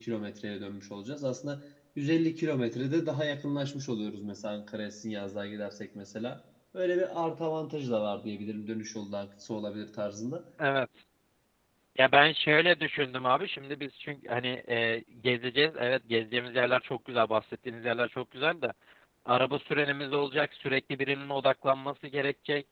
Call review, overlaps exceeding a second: none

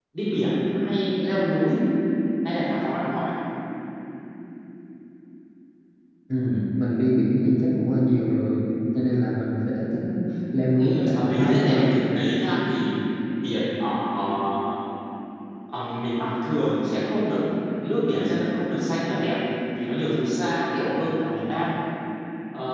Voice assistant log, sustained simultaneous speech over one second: present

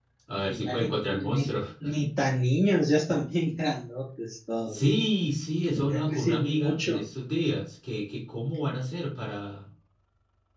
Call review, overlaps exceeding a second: present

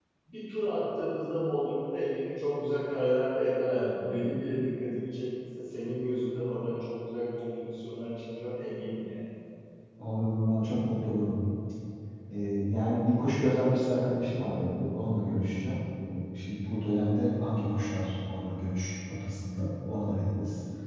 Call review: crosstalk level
none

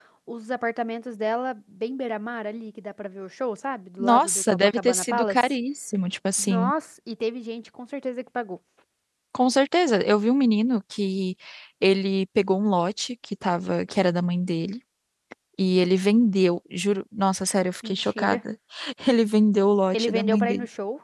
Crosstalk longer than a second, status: present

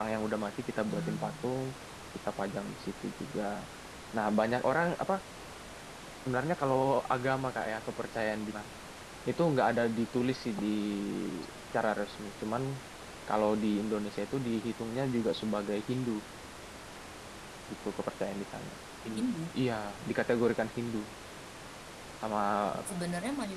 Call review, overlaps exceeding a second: none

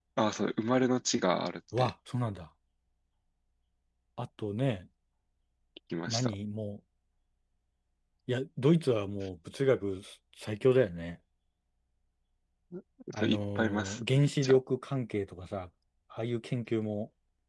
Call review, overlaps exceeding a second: present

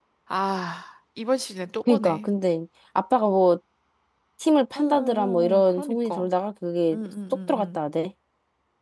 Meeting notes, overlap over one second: present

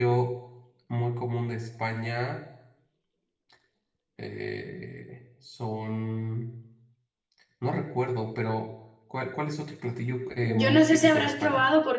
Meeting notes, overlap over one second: present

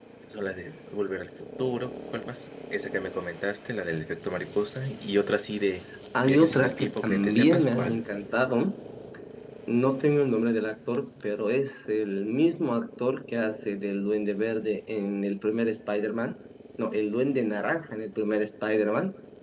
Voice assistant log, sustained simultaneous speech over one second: present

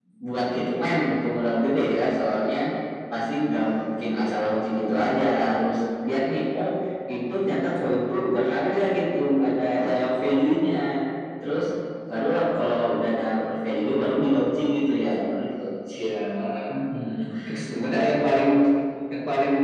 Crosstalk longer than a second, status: none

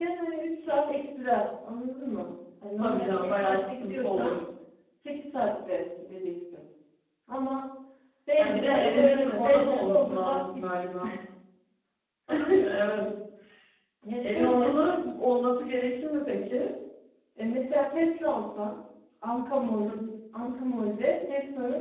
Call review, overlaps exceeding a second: present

